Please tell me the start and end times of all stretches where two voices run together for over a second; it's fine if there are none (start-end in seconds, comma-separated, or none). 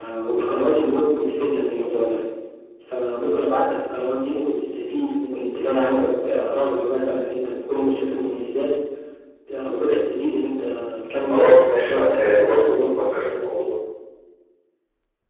11.3-13.0